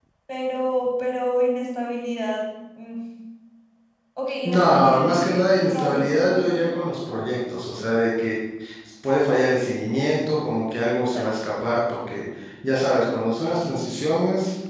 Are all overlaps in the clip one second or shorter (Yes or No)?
No